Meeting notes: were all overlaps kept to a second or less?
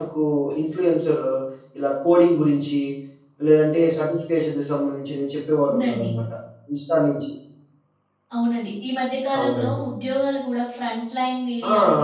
Yes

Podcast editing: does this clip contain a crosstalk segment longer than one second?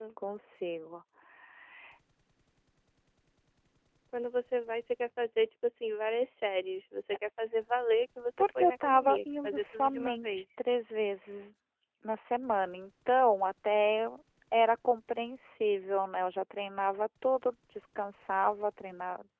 Yes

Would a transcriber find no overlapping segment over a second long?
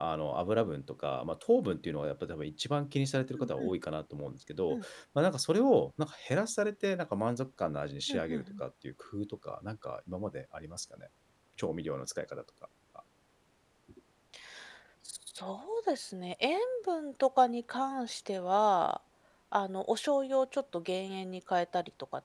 Yes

